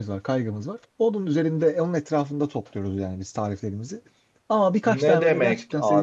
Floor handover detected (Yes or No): Yes